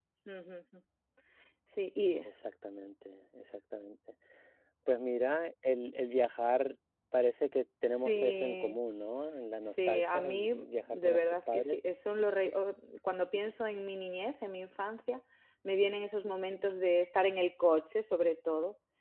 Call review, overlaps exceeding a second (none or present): present